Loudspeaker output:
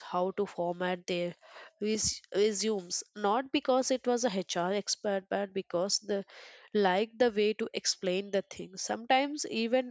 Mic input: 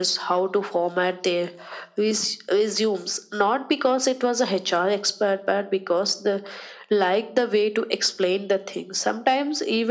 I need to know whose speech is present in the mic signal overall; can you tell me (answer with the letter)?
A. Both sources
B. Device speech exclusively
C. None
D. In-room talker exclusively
B